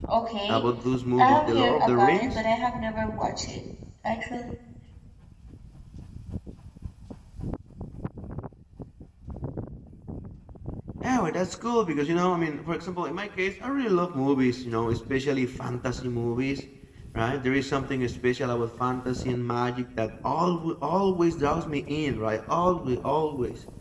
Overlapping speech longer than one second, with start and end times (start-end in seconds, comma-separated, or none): 1.2-2.4